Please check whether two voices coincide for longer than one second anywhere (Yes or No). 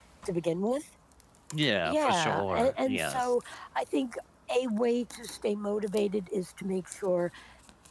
Yes